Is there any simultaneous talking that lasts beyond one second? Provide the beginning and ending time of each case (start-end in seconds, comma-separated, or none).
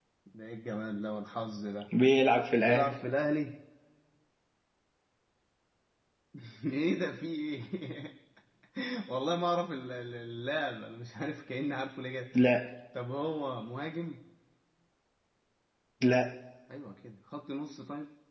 none